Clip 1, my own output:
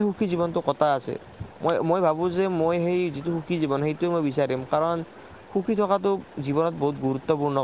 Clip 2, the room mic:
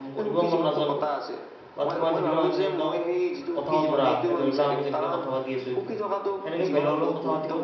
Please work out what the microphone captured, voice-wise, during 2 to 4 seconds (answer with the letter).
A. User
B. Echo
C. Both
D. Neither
C